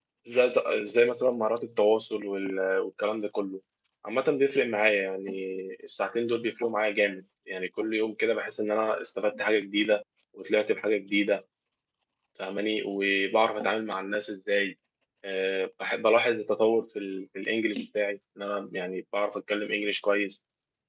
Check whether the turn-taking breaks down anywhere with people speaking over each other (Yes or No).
No